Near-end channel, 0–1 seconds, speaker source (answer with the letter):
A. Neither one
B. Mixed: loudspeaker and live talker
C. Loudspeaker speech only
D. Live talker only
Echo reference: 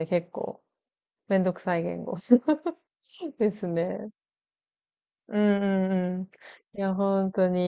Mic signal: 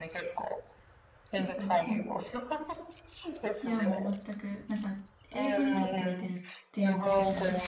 C